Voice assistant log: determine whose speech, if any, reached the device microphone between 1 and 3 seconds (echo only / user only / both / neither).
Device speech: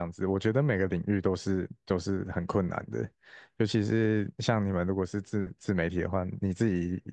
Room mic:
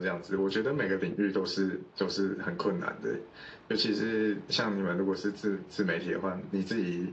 echo only